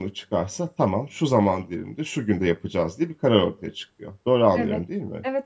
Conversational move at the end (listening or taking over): taking over